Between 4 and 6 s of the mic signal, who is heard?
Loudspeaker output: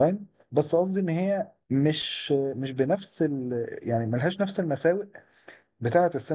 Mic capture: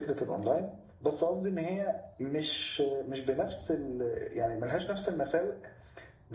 echo only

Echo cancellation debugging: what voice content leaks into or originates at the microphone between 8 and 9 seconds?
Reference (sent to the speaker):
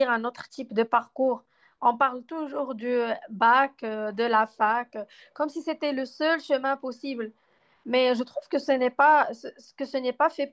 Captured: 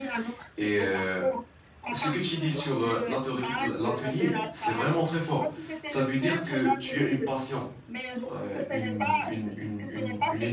both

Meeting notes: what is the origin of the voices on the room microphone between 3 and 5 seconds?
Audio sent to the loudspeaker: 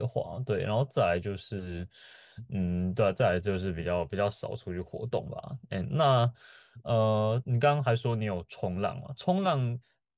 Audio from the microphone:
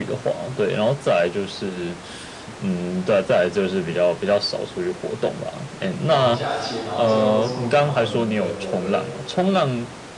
echo only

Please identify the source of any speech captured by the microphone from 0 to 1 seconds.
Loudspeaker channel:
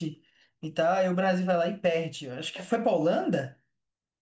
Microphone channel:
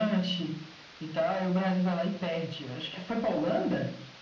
echo only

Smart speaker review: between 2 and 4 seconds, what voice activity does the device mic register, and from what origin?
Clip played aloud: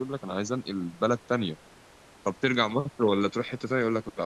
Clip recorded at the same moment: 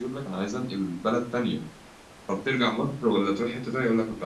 echo only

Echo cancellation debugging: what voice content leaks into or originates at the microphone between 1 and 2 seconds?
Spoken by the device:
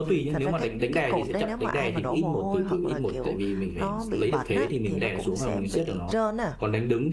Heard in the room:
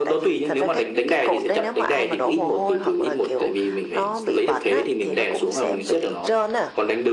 echo only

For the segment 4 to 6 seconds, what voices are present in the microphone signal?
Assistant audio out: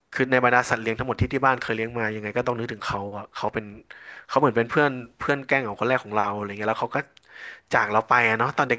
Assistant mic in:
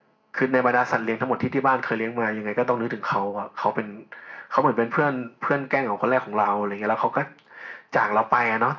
echo only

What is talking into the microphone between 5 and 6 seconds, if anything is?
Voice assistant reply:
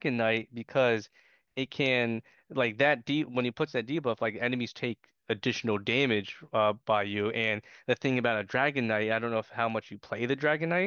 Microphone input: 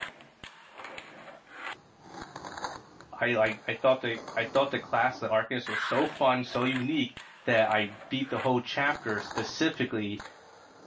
user only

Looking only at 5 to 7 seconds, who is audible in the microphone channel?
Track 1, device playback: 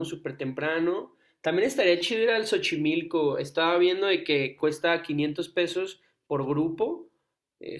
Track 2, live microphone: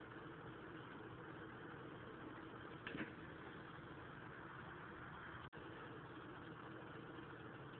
neither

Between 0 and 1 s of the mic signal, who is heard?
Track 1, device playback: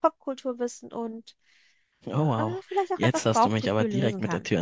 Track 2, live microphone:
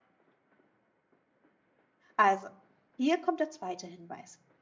neither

